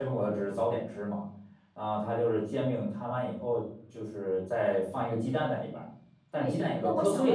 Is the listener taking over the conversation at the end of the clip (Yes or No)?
Yes